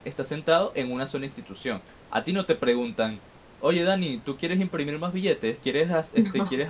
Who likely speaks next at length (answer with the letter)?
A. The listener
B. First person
B